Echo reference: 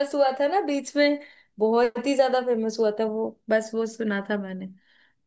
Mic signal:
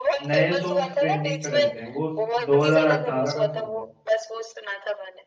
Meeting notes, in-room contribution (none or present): present